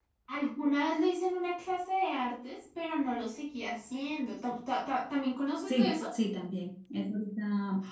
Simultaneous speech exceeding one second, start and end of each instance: none

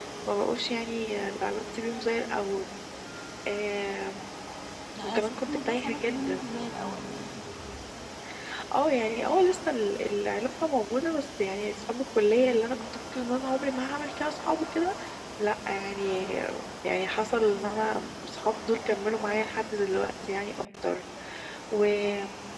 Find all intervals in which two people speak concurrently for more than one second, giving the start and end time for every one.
5.0-6.4

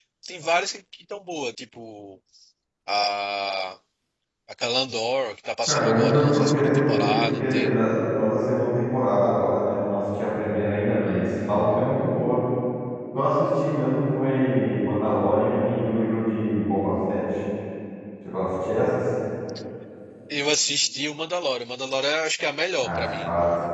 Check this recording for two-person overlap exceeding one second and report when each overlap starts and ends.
5.7-7.7

